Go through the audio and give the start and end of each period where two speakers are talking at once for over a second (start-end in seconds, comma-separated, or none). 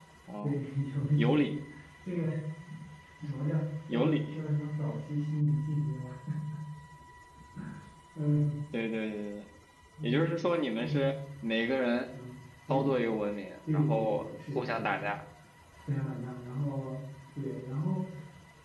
13.7-15.1